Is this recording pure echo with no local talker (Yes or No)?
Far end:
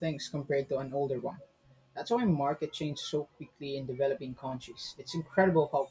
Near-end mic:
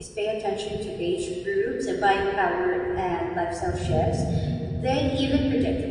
No